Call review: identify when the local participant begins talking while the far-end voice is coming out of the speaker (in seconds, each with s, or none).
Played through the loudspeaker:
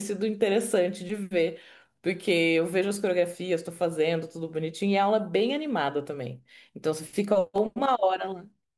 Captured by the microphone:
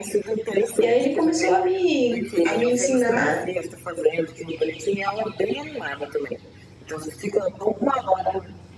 0.8 s